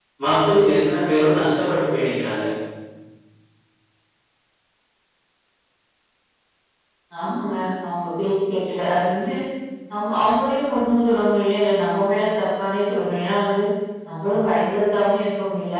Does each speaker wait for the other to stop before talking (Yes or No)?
Yes